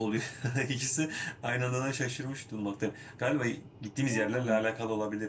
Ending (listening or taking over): listening